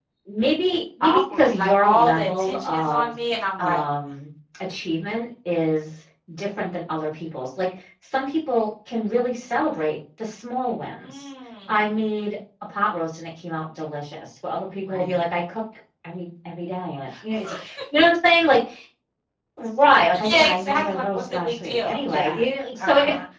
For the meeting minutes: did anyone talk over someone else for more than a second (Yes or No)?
Yes